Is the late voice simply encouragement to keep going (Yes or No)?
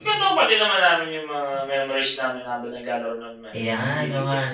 No